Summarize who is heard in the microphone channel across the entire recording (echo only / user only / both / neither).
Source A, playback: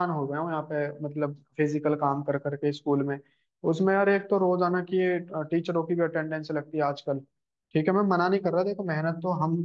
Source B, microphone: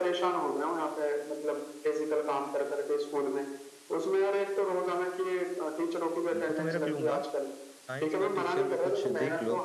both